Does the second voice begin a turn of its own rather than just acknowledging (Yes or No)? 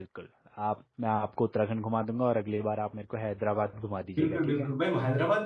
Yes